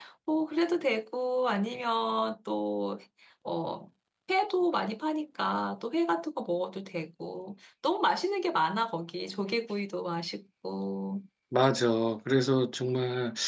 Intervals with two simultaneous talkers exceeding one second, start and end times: none

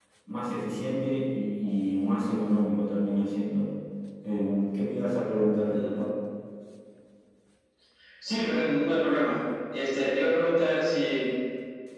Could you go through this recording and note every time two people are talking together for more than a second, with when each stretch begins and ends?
none

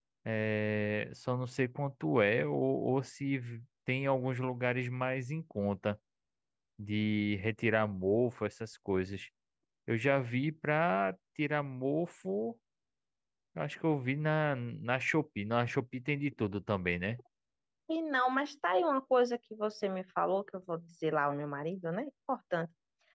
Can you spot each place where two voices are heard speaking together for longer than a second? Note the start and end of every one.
none

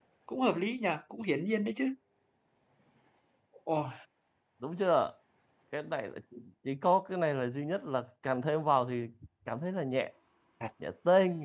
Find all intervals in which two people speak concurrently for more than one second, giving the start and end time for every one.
none

